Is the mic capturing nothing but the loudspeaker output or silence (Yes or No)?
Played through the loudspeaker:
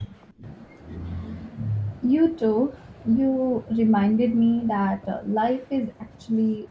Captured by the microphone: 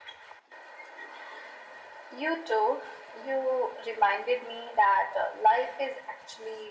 Yes